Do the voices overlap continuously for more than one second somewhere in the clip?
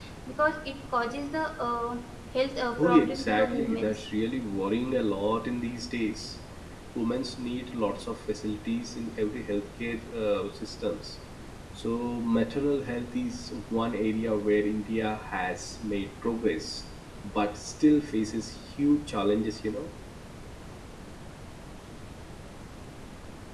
Yes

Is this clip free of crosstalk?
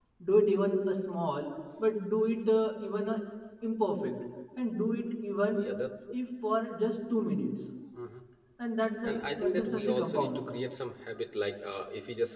No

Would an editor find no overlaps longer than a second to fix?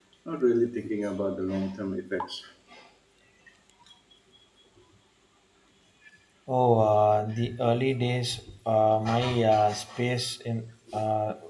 Yes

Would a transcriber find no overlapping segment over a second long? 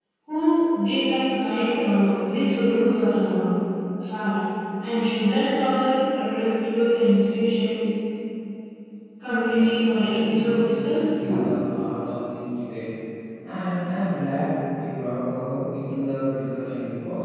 No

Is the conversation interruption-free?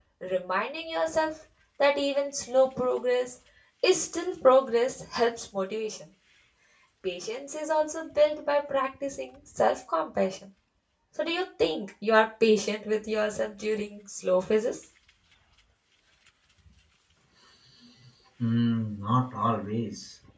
Yes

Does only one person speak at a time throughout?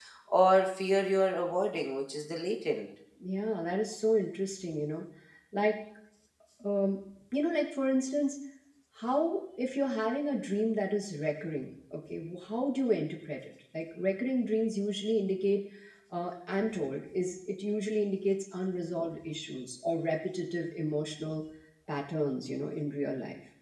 Yes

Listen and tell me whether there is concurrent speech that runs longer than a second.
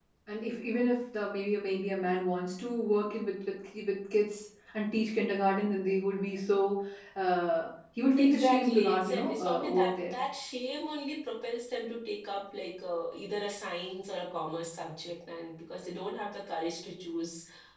Yes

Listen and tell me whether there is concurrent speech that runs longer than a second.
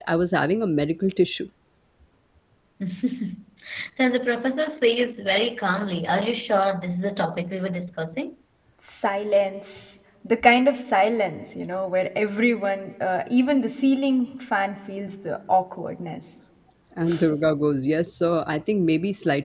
No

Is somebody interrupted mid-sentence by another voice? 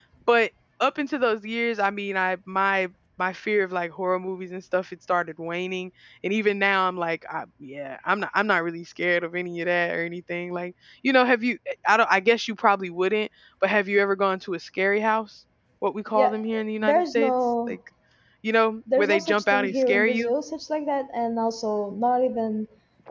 Yes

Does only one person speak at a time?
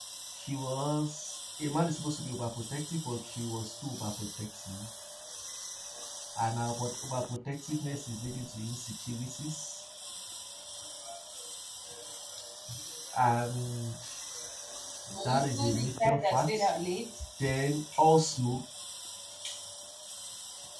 No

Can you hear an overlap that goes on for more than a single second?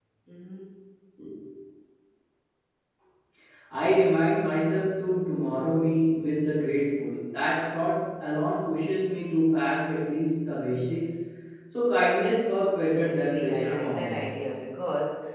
Yes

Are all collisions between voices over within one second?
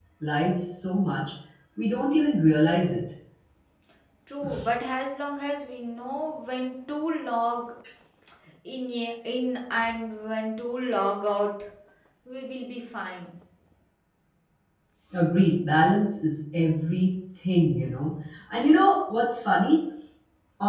Yes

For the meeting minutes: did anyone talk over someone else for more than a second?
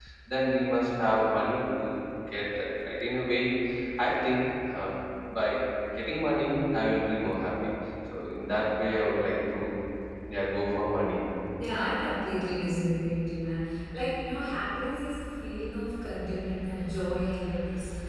No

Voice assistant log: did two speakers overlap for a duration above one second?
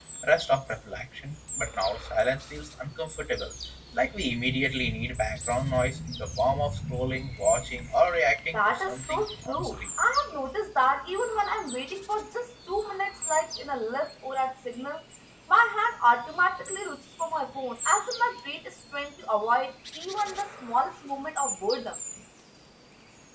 Yes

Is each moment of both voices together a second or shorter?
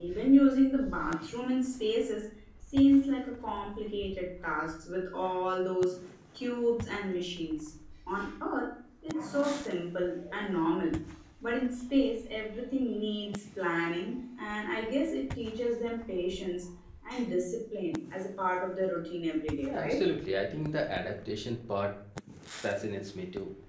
Yes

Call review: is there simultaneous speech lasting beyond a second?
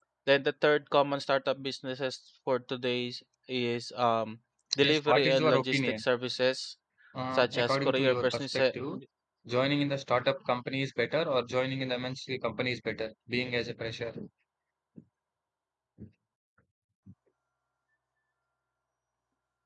Yes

